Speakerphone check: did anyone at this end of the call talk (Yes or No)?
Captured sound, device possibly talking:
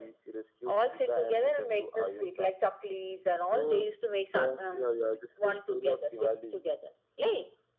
No